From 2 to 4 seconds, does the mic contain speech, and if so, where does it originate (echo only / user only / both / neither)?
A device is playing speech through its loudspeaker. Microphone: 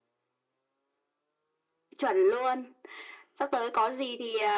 echo only